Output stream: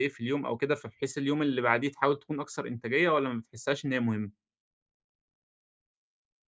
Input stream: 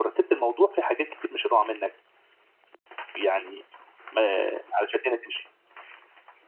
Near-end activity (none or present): present